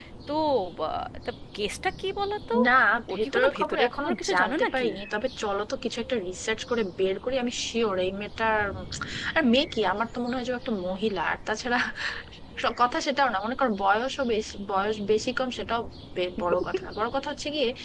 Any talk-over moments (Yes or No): Yes